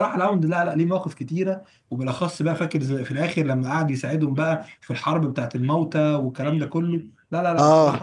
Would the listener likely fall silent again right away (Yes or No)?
No